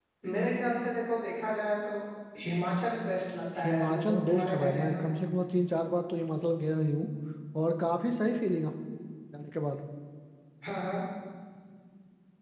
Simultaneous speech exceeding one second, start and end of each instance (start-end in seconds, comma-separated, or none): 3.6-5.1